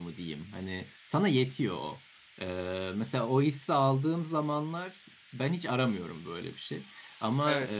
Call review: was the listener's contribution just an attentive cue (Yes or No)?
Yes